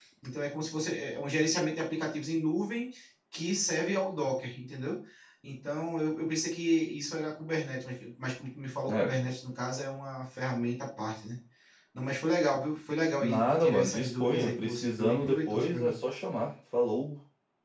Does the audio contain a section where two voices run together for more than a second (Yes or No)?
Yes